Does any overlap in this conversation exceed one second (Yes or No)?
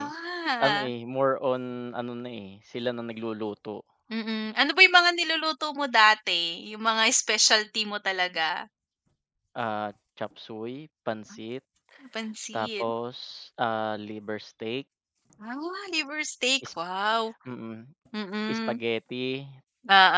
No